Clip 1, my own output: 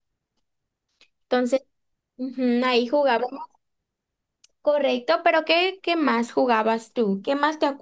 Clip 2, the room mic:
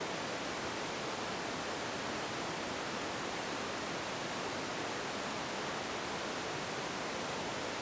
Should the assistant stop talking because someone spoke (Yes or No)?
No